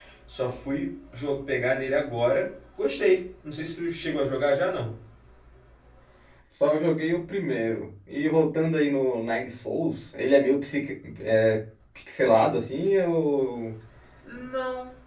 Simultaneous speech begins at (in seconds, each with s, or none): none